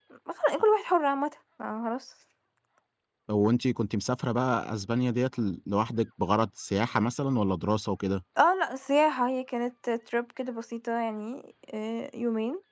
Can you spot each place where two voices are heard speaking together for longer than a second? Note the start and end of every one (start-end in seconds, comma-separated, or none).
none